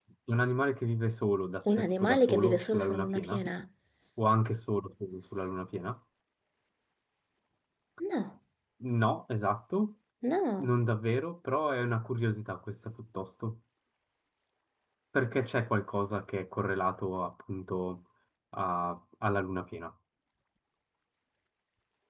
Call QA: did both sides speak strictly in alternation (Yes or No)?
No